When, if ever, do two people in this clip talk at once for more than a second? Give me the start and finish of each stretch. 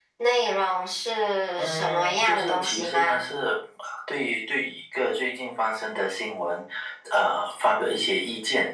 1.6-3.2

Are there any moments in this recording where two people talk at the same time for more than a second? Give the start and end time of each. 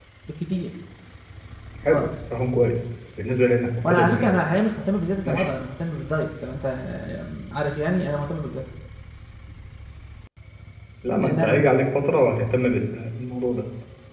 none

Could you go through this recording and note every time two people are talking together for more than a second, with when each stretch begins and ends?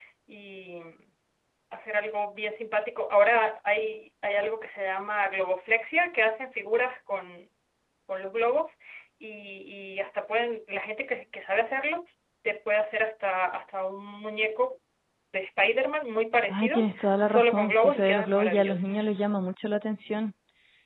16.5-18.9

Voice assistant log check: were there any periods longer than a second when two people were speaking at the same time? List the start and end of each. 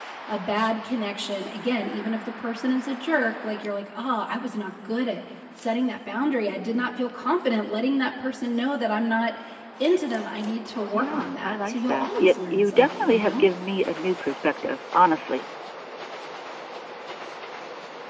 10.9-13.5

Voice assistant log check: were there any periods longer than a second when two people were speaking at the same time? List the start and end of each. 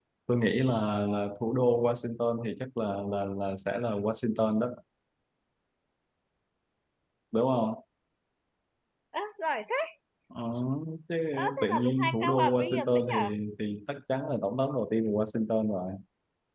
11.6-13.3

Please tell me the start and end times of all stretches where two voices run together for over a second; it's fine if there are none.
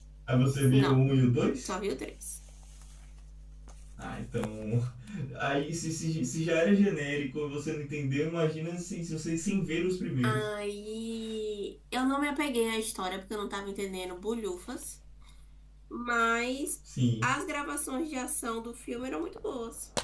none

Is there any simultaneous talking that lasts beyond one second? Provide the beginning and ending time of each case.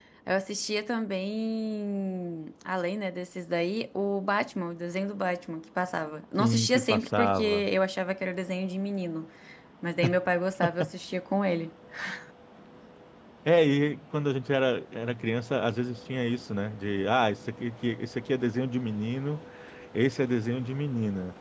6.4-7.7

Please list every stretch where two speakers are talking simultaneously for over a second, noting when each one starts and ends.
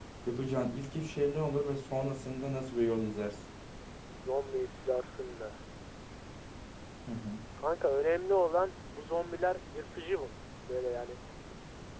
none

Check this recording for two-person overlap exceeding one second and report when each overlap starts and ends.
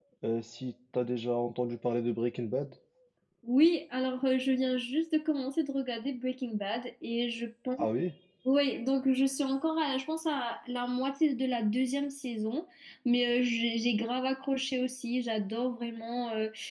none

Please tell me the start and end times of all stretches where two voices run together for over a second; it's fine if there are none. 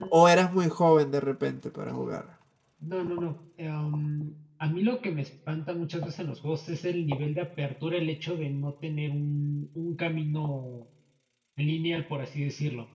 none

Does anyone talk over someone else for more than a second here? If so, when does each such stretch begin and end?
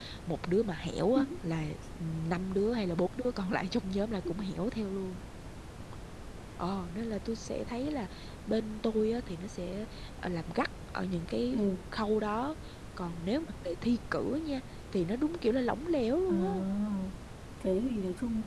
none

